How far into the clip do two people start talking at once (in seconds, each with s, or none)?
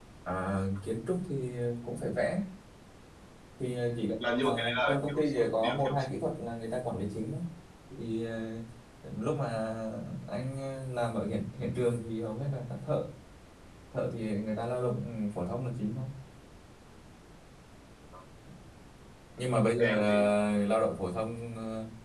4.3 s